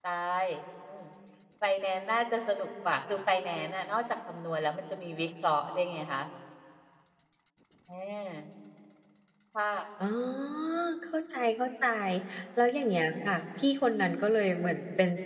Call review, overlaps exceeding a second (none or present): none